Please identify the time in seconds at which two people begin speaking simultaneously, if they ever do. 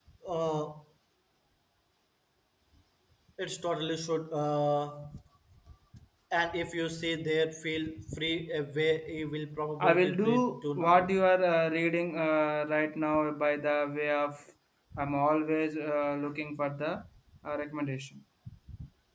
10 s

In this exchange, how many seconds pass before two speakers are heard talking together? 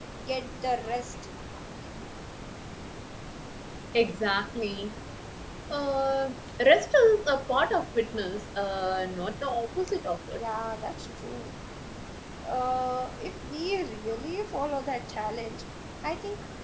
none

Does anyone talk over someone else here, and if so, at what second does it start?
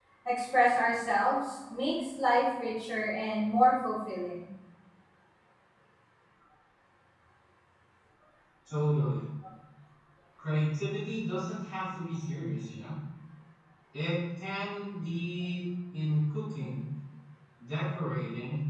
none

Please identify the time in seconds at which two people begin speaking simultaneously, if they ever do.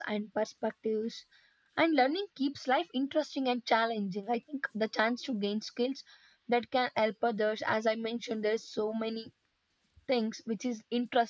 none

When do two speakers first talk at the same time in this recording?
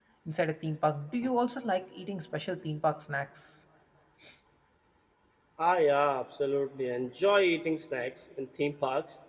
none

